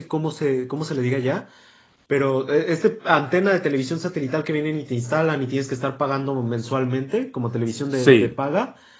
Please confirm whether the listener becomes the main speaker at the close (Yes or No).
No